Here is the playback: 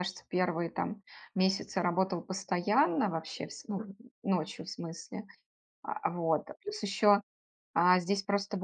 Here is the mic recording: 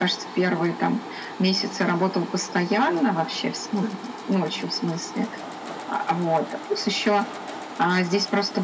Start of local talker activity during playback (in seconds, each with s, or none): none